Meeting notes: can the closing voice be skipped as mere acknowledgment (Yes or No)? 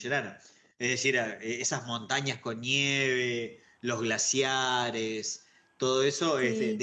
Yes